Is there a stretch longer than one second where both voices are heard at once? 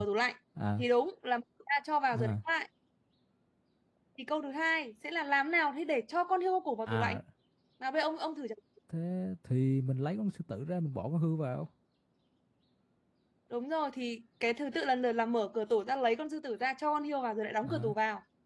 No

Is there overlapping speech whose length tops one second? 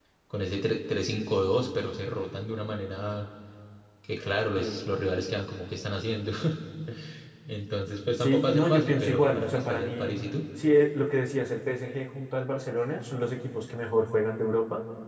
Yes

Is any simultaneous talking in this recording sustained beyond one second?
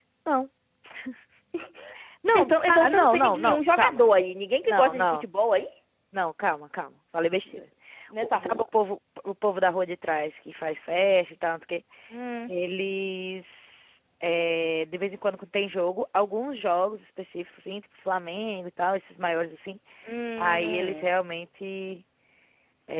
Yes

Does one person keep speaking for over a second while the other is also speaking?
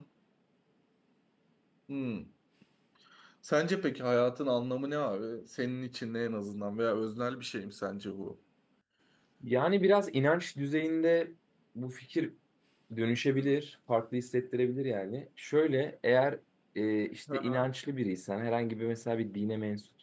No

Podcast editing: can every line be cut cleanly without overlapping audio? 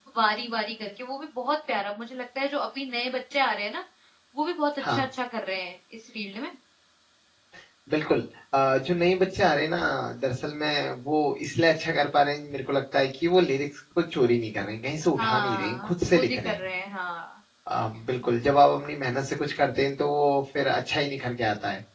No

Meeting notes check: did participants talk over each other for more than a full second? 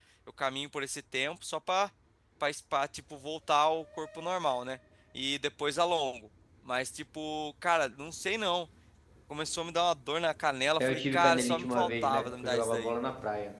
Yes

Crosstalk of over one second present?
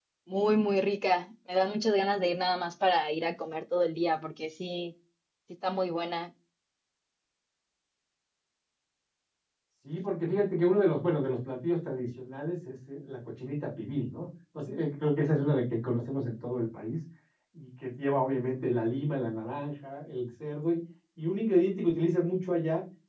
No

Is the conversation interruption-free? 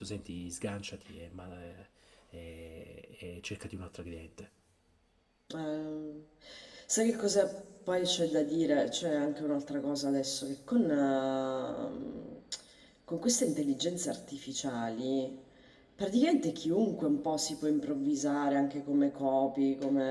Yes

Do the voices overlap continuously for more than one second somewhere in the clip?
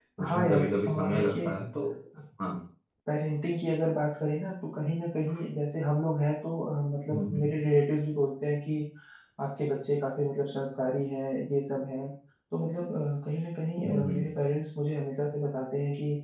Yes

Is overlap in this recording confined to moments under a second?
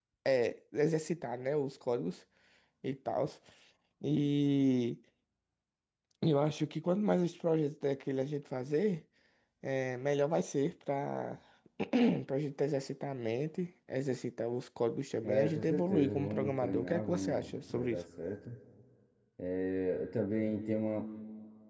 No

